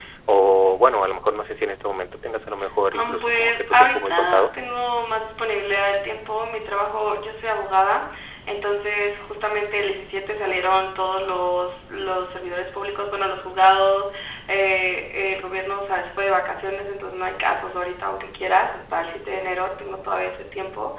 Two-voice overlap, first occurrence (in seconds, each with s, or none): 2.9 s